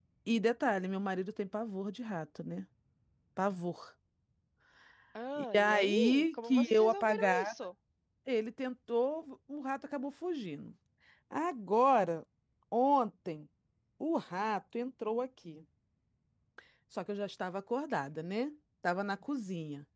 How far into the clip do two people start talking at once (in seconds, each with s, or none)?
5.4 s